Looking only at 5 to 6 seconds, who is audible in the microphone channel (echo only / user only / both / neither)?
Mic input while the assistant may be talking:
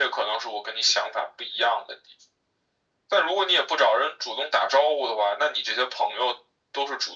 echo only